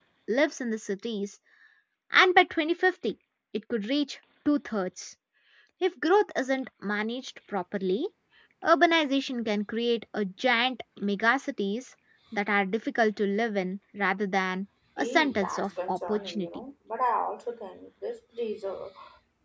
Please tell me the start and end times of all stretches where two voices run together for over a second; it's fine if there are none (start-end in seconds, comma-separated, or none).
15.0-16.5